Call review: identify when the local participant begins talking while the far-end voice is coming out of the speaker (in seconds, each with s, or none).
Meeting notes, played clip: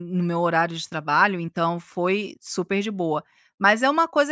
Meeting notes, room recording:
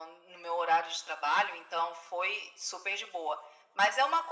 none